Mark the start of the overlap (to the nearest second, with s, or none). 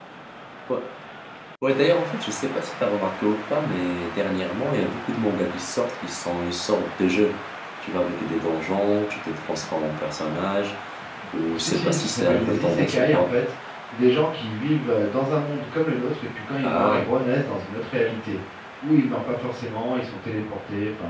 12 s